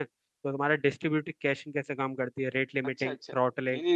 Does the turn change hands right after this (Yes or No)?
Yes